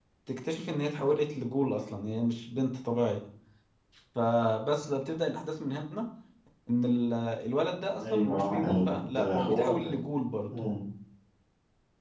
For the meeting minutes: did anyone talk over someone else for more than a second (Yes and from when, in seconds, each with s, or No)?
Yes, from 8.0 s